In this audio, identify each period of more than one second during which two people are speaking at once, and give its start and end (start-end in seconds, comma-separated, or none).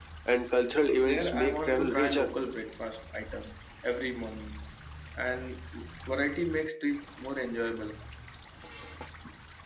1.0-2.3